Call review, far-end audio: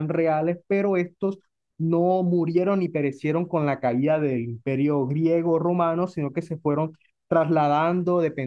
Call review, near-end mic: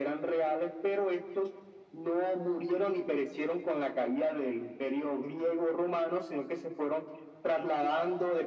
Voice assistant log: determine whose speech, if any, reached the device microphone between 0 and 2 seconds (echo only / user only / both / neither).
echo only